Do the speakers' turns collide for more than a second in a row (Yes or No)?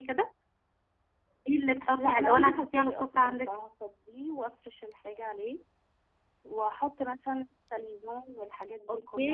Yes